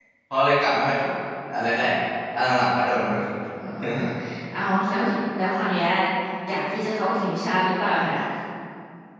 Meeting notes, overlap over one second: none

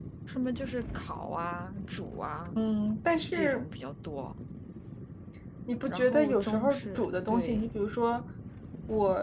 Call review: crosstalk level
present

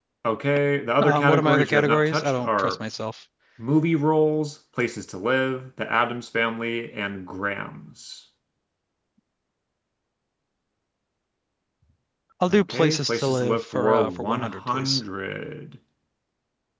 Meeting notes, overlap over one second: present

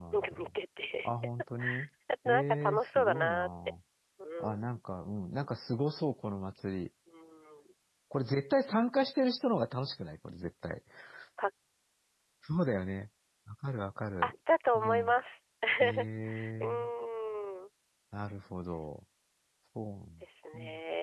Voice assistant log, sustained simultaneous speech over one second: present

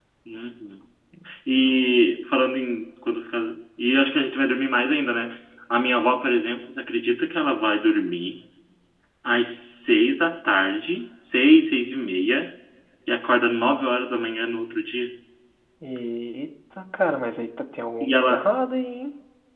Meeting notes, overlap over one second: none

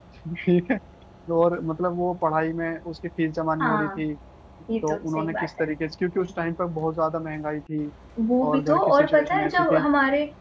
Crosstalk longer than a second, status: present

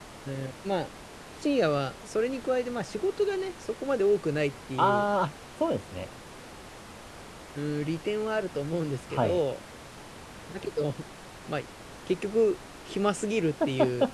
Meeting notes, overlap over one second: none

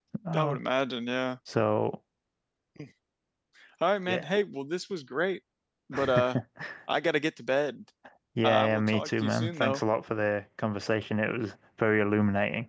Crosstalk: present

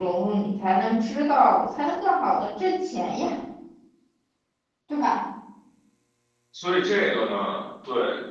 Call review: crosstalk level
none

